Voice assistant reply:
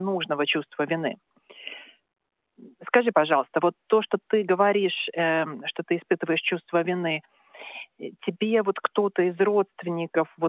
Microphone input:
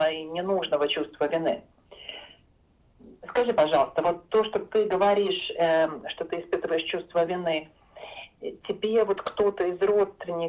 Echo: present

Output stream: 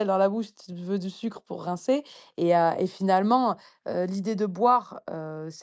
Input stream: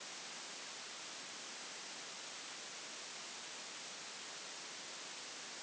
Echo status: none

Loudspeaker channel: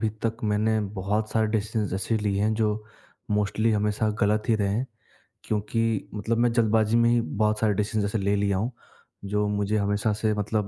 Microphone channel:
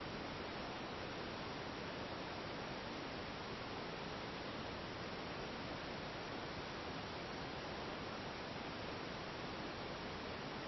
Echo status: none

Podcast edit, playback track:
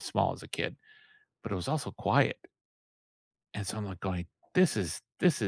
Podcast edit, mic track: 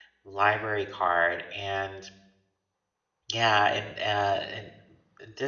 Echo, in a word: none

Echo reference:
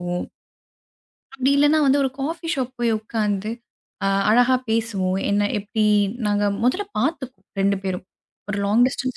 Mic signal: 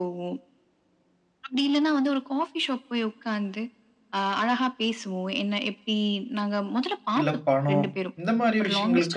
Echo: present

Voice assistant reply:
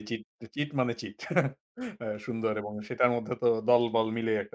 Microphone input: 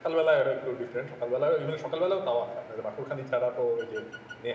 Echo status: none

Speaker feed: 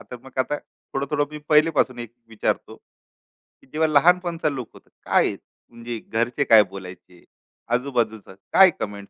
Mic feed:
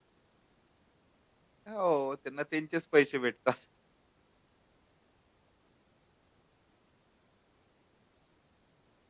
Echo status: none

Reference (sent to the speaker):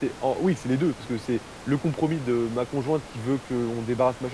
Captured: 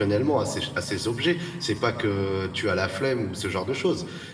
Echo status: none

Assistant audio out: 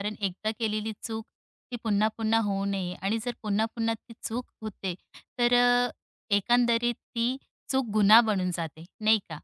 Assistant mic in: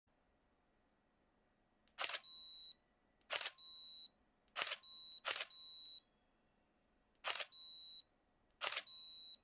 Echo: none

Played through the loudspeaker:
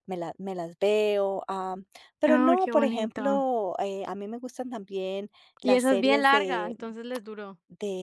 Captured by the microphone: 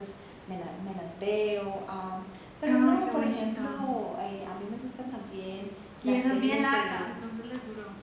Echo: present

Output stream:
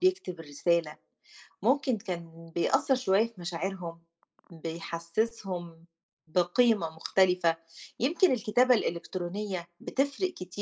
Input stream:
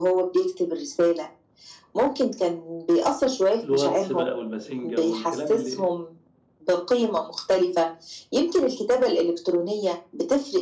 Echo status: present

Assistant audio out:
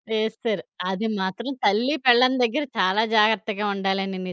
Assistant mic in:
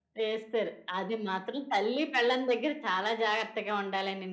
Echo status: present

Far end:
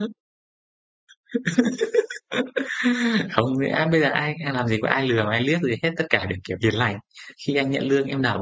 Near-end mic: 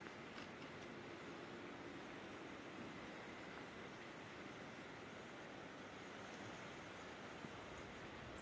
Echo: none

